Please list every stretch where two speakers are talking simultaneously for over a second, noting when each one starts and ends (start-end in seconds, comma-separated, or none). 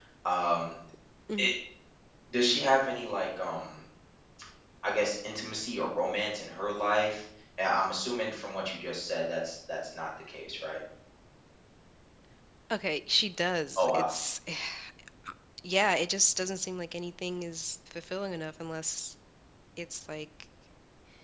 none